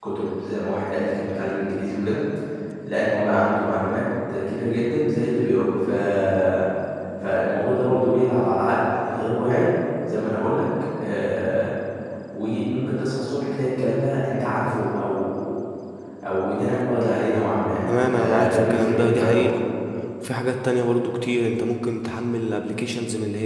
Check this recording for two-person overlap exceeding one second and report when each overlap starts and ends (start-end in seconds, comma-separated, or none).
17.9-19.5